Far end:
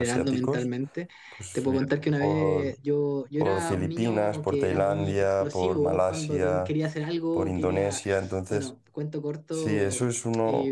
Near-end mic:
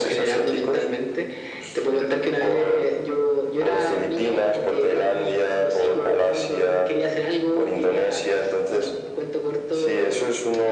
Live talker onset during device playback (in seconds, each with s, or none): none